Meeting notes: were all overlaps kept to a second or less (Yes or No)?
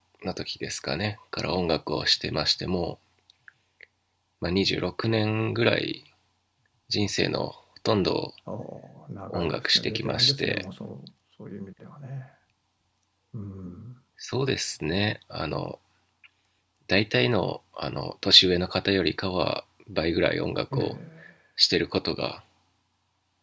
No